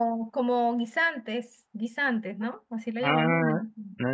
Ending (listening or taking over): taking over